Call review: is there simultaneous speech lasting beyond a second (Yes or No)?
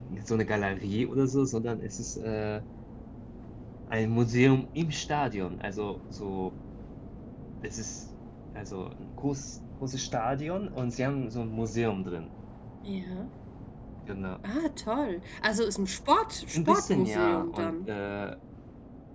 Yes